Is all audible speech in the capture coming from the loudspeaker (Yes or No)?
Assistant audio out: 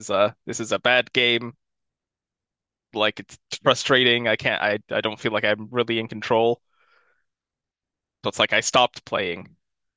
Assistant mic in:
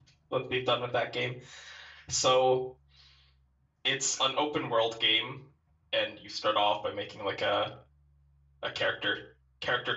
No